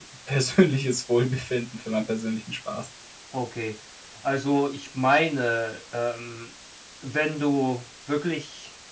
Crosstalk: none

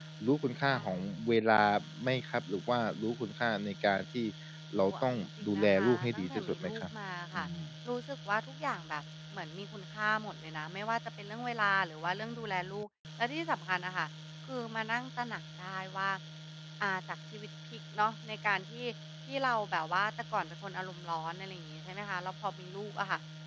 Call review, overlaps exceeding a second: present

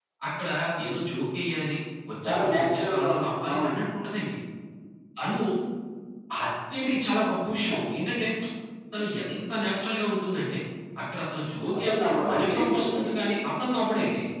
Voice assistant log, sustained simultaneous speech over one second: present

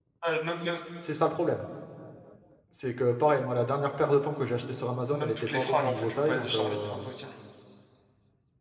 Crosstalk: present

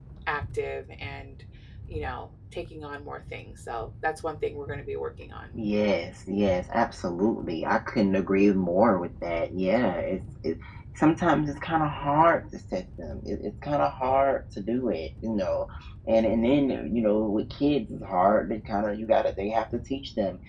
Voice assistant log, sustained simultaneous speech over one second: none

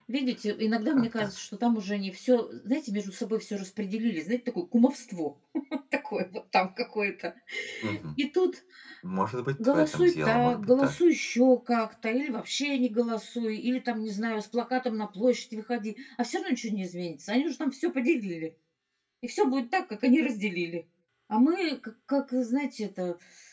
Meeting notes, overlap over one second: present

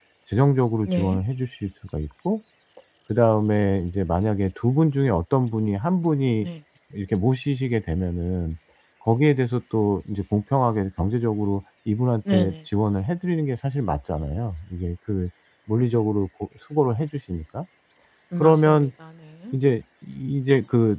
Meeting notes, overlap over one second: none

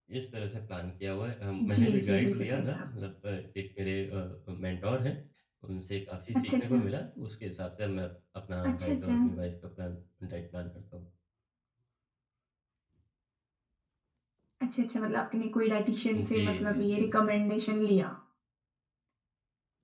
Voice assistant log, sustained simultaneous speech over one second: present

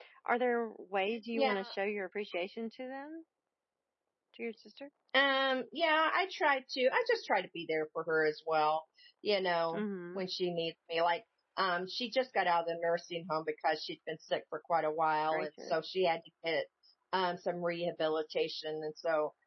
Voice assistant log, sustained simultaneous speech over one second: none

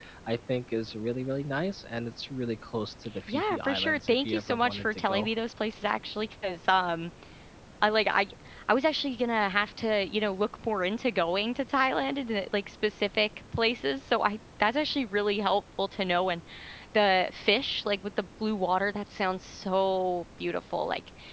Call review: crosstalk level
present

